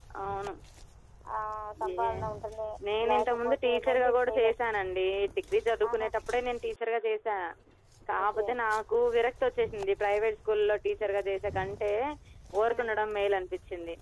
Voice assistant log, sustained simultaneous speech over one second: present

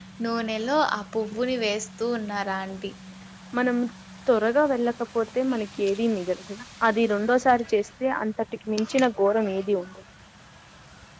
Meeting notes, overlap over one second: none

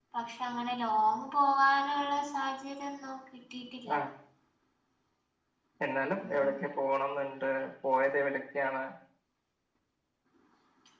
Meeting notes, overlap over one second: none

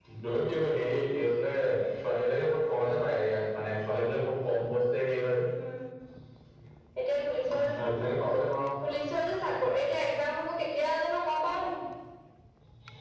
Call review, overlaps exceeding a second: none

